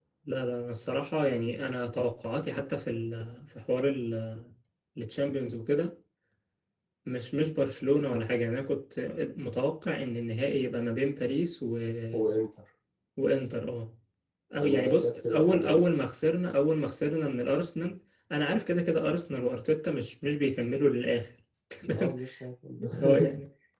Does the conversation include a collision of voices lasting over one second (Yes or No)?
Yes